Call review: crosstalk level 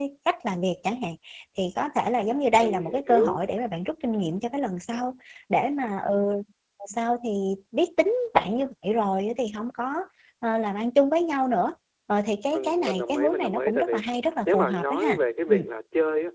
present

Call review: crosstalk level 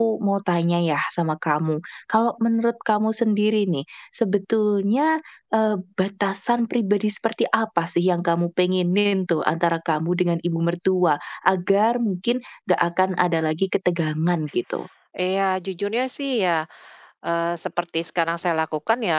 none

